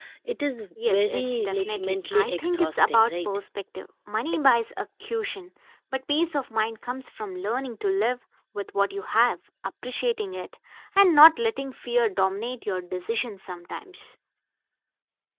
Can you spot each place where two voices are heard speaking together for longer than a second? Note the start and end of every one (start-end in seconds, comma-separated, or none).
0.8-3.3